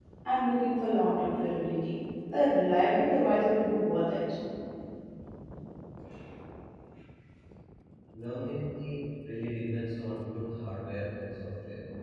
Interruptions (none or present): none